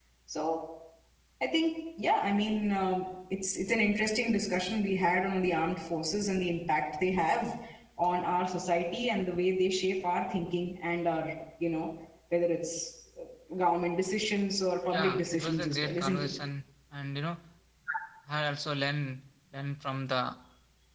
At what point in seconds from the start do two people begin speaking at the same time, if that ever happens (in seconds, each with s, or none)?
14.9 s